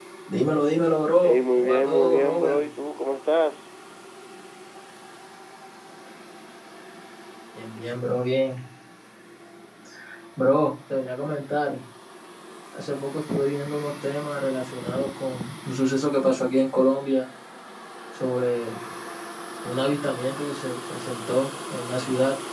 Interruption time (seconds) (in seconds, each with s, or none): 1.2 s